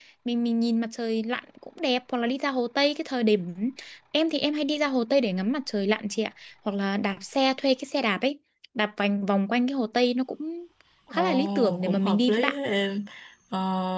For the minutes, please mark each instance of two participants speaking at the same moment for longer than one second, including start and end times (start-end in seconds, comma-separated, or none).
11.1-12.6